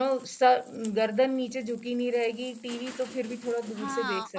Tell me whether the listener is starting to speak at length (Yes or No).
Yes